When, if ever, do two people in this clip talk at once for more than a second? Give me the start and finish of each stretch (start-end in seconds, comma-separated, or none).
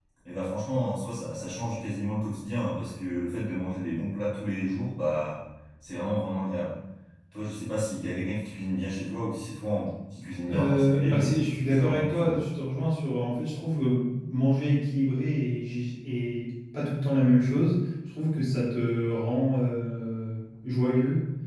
10.5-12.4